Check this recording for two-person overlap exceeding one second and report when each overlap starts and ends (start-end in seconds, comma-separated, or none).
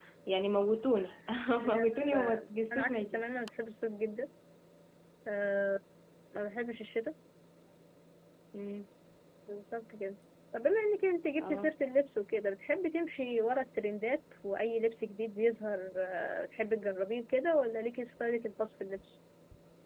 1.7-3.4